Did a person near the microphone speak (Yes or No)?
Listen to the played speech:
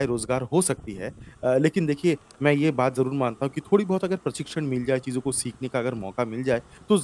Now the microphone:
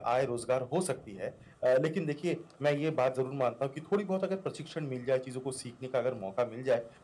No